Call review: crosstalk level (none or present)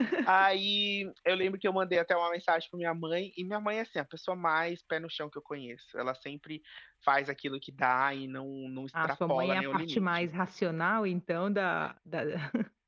present